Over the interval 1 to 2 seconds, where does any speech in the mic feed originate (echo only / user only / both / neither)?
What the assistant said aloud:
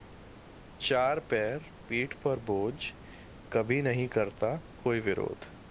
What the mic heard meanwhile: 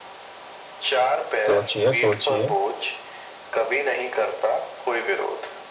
both